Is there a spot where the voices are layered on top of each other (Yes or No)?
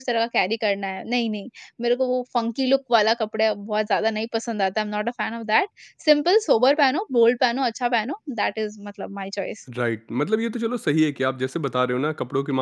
No